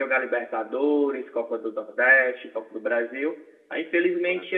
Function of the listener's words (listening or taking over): listening